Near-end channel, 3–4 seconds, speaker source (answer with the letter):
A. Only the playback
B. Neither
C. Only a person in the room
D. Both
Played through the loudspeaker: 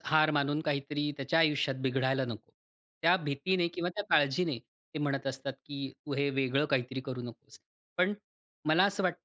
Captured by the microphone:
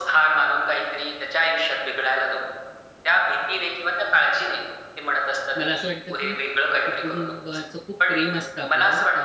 A